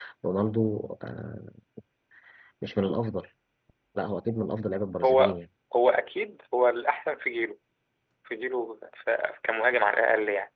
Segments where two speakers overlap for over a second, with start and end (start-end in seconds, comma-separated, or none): none